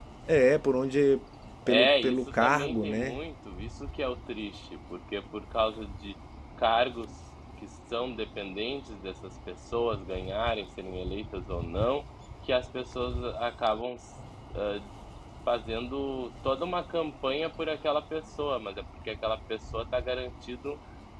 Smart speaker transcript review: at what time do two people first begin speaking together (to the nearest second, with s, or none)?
2 s